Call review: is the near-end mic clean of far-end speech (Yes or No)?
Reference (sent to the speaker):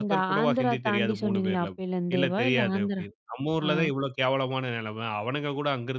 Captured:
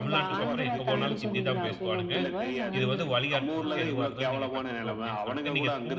No